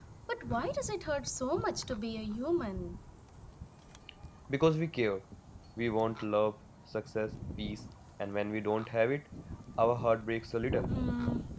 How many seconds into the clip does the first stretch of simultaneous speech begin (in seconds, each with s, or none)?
none